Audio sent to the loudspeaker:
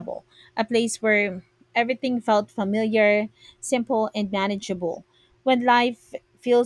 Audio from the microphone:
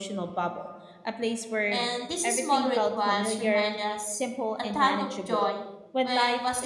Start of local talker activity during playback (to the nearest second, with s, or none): 2 s